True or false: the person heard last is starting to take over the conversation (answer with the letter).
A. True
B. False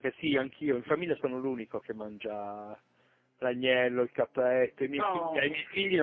B